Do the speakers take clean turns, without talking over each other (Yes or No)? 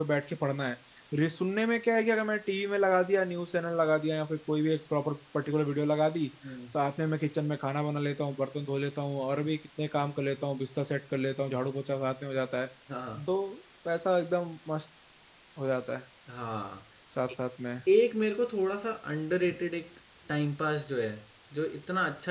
Yes